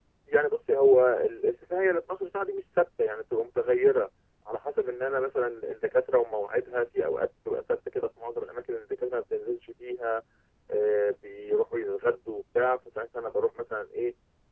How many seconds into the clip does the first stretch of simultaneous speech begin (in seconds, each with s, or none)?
none